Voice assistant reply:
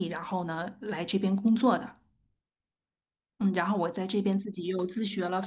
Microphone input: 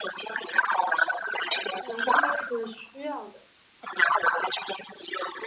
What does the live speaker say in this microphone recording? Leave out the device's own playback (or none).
呃，应该是需要的。